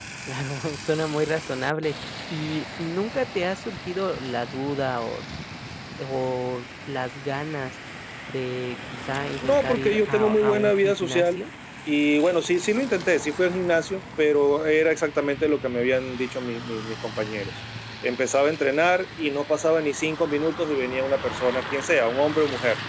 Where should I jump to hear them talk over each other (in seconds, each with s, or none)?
9.4 s